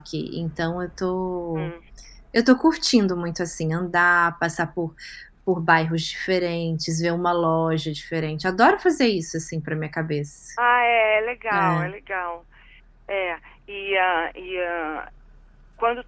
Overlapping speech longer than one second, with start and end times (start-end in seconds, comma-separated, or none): none